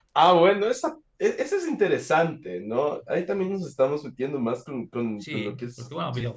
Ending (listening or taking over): taking over